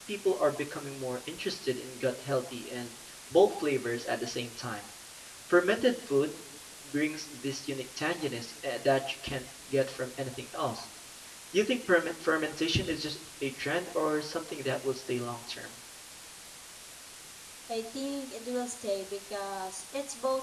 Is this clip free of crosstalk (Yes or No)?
Yes